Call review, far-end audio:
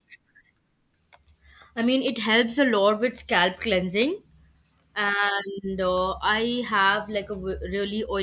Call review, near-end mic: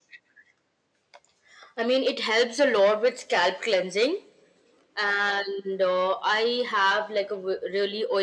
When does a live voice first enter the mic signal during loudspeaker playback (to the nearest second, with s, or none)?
none